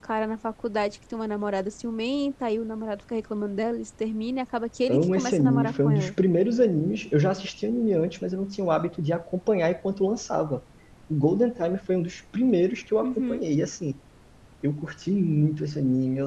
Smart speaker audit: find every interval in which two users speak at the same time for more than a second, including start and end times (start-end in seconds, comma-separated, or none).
4.9-6.1